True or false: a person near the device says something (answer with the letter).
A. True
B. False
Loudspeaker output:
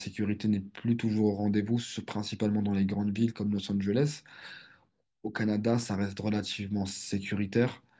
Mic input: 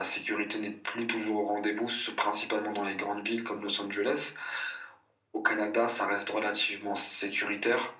B